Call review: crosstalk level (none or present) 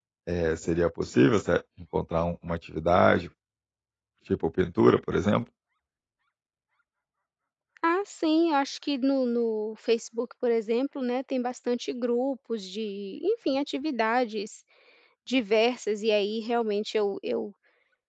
none